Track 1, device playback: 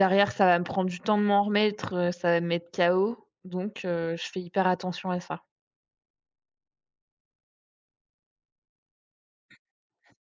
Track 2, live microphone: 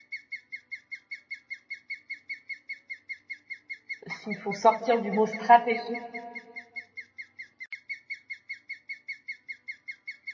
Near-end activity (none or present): present